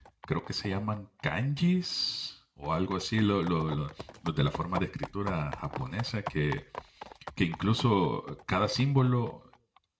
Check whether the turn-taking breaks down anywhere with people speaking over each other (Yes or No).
No